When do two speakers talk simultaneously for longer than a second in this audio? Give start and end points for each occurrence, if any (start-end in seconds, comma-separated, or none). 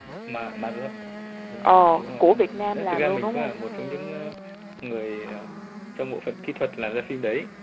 1.6-3.5